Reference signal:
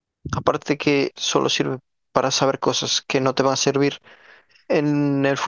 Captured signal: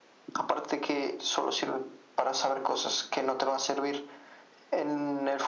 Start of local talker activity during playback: none

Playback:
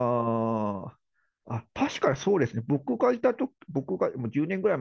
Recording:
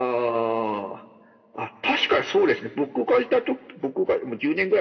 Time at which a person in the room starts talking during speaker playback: none

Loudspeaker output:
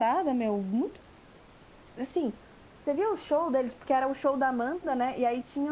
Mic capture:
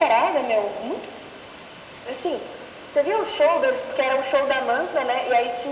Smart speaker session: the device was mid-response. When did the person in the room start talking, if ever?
none

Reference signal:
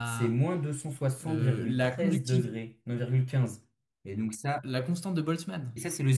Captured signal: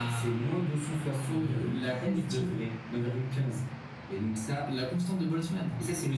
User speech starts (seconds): none

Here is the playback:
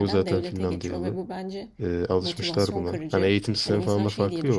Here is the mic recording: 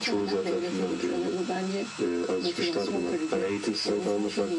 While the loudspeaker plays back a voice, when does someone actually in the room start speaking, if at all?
none

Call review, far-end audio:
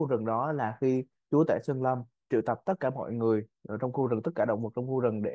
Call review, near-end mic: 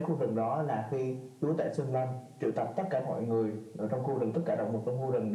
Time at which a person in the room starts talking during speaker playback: none

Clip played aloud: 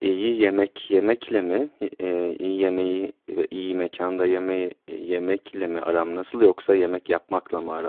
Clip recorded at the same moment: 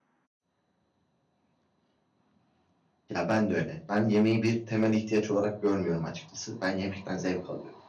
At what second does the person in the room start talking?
3.1 s

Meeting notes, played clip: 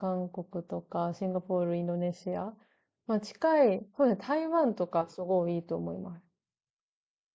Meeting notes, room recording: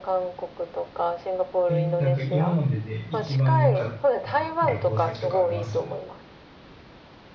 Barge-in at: 1.7 s

